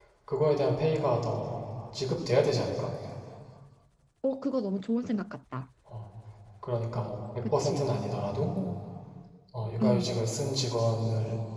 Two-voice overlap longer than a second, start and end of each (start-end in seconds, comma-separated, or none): none